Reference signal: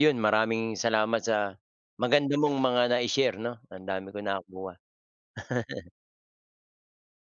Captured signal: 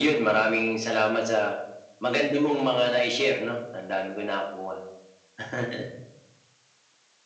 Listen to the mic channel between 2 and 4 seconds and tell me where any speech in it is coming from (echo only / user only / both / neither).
echo only